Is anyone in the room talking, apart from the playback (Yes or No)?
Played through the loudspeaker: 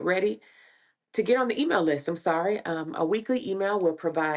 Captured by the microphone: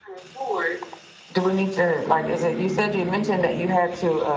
Yes